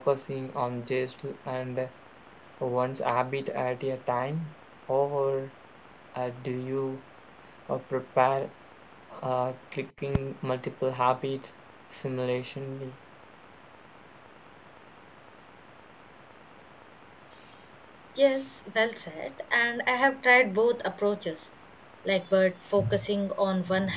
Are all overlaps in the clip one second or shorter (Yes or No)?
Yes